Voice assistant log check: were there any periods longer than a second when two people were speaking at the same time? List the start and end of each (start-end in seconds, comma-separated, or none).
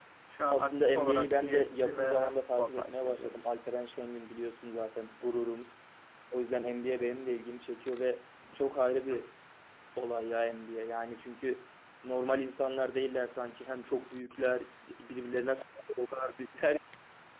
0.5-3.4